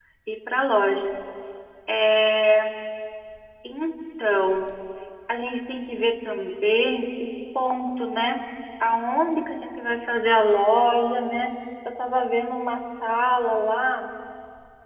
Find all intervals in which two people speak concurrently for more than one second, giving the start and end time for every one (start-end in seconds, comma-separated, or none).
none